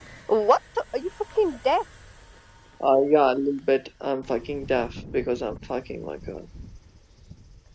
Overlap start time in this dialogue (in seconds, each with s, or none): none